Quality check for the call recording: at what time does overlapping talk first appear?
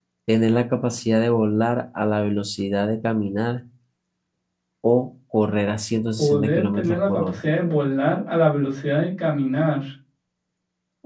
6.2 s

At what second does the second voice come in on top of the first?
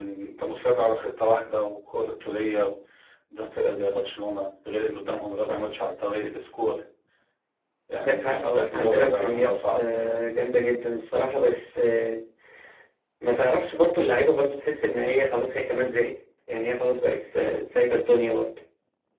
8.0 s

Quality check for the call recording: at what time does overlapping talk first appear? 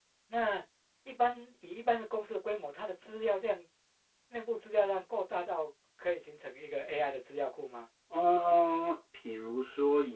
none

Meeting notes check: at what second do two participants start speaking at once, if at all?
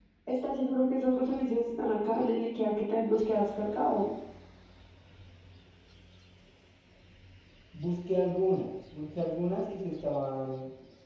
none

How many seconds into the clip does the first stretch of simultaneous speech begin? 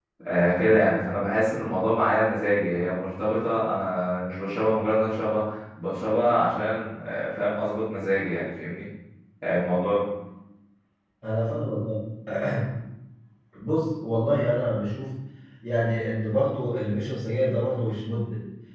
none

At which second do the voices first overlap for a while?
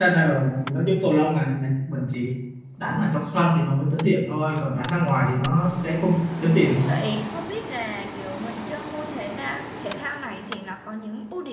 none

